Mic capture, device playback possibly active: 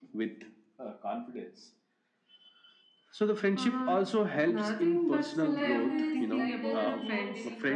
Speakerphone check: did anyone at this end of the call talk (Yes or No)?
Yes